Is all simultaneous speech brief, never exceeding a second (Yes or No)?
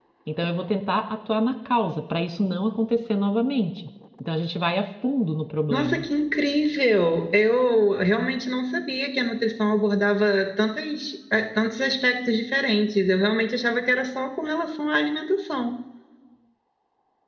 Yes